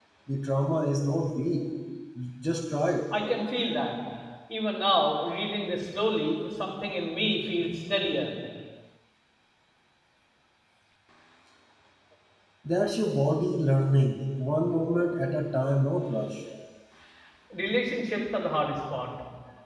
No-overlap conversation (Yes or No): Yes